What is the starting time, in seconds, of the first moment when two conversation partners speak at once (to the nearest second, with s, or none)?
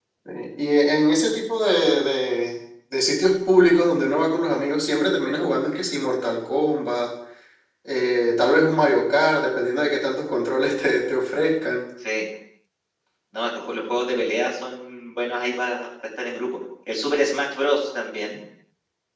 none